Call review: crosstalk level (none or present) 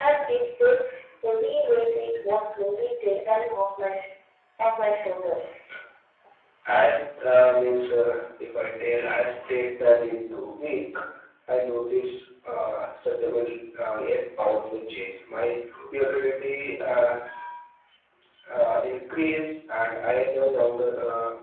none